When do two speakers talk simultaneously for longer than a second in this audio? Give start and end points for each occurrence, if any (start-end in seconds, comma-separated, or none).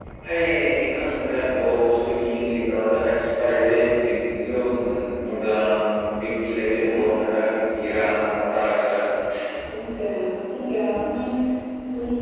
none